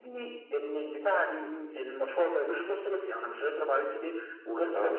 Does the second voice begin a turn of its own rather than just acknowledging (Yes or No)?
No